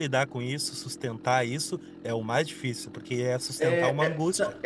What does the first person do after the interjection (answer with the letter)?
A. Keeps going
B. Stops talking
B